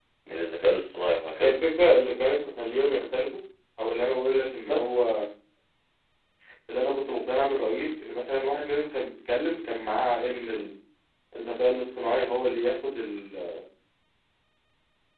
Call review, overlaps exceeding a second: none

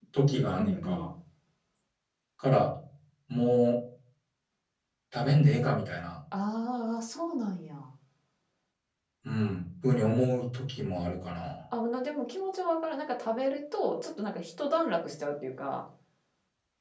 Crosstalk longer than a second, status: none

